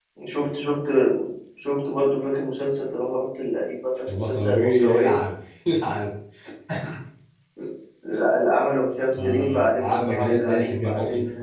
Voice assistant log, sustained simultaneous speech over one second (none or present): present